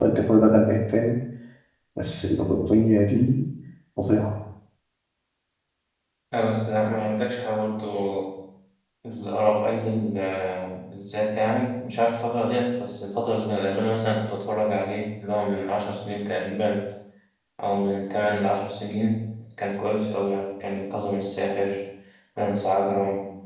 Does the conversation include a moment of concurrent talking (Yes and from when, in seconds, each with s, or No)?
No